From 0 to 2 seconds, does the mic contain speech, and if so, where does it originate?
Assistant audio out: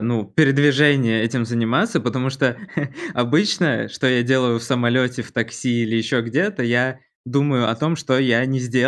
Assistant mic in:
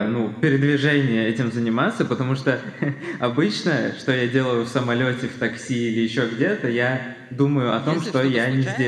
echo only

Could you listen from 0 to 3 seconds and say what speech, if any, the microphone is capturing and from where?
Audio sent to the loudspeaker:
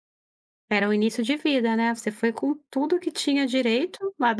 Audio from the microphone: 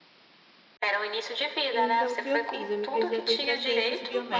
both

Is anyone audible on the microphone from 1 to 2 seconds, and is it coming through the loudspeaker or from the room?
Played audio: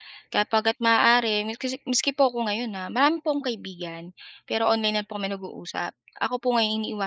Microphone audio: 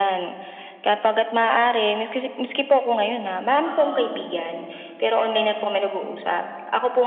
echo only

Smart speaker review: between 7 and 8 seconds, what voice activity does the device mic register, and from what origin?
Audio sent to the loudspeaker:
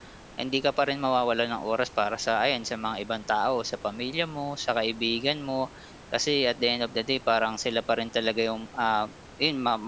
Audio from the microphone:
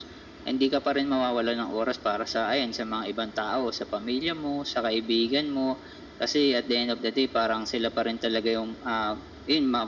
echo only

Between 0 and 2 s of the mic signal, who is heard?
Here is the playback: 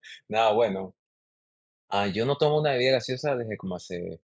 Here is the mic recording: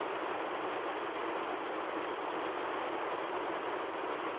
neither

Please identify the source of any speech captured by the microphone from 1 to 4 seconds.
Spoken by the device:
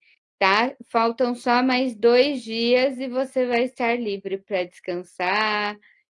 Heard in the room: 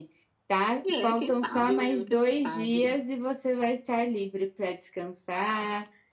both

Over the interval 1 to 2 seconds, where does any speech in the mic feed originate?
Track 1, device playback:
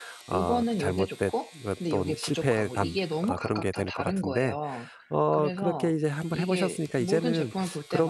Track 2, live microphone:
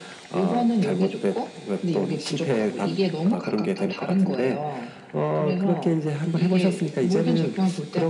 echo only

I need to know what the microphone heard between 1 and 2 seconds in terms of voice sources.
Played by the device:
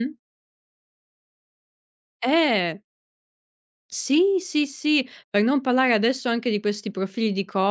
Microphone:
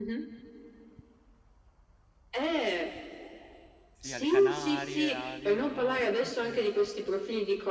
neither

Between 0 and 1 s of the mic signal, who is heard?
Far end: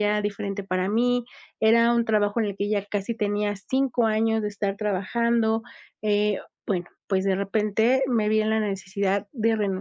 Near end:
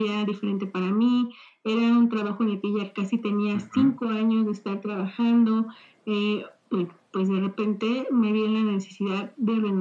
echo only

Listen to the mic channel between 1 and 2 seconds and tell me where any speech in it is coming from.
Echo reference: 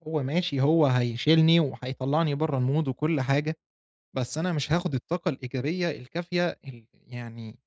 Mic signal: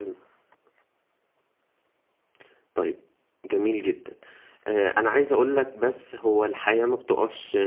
neither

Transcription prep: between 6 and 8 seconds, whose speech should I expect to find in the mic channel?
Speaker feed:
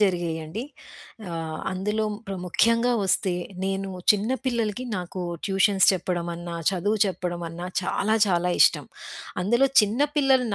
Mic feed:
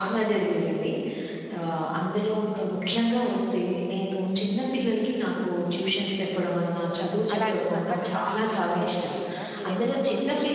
both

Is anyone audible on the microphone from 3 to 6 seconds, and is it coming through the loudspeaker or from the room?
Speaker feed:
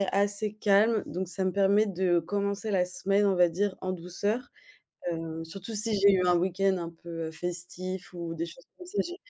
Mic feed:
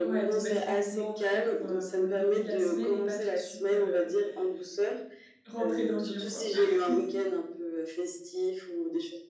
both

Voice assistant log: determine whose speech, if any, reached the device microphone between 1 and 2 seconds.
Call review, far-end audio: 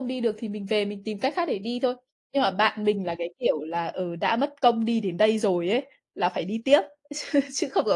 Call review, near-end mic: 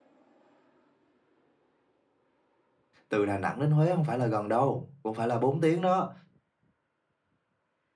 neither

